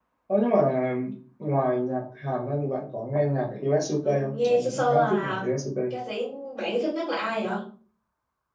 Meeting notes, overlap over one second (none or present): present